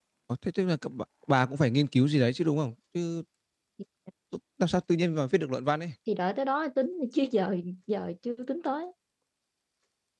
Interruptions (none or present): none